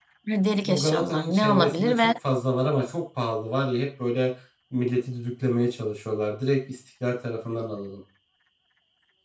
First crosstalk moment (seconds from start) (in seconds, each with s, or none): 0.6 s